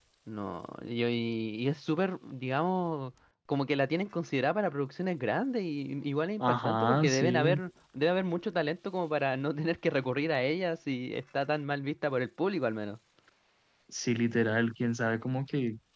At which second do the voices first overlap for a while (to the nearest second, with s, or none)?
6 s